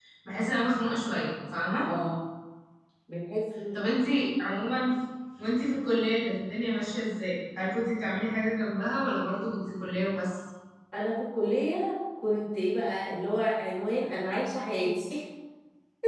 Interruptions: none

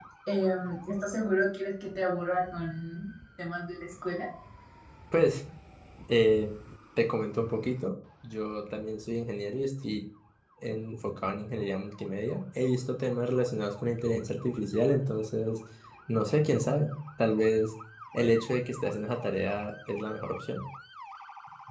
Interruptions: none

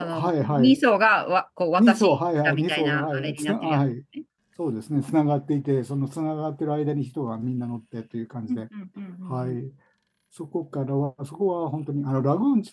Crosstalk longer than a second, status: present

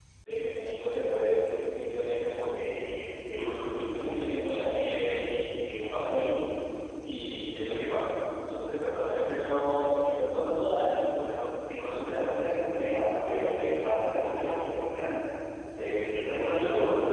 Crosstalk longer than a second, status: present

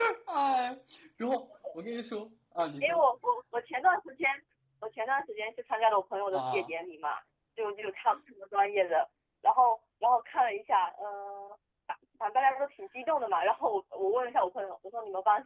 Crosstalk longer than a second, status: none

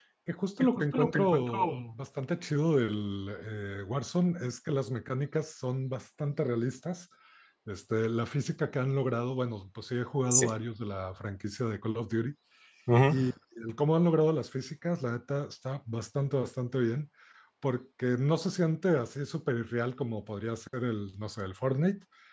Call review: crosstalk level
present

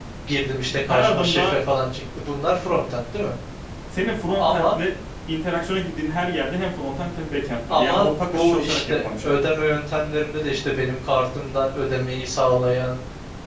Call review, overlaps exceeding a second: present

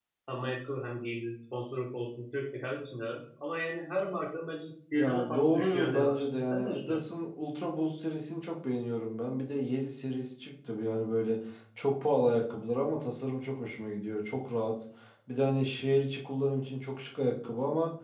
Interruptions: present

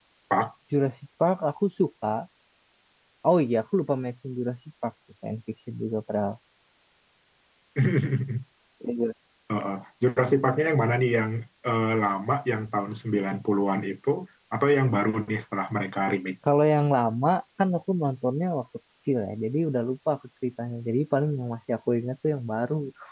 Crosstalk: none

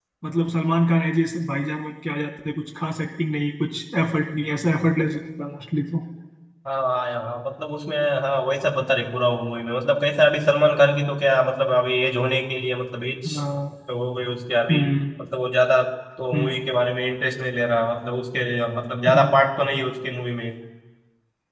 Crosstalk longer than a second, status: none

